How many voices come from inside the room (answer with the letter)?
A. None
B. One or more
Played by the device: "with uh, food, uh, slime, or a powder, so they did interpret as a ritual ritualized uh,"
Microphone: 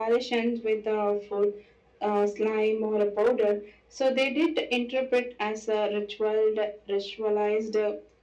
A